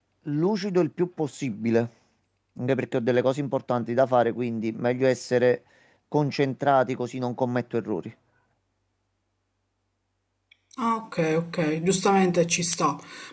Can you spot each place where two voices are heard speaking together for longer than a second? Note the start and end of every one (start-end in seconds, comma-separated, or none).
none